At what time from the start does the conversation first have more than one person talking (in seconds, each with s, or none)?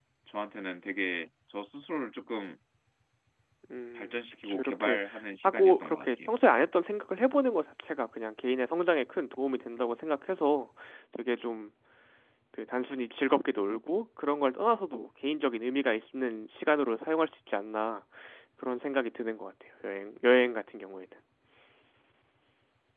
4.0 s